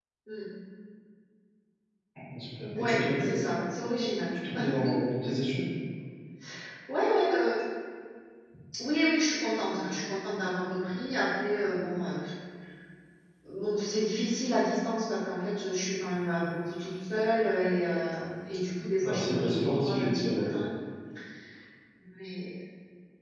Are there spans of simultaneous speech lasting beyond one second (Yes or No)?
Yes